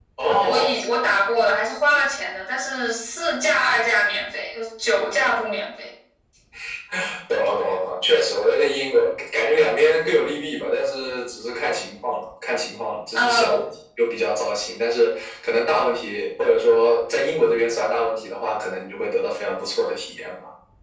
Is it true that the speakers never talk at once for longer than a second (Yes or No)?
Yes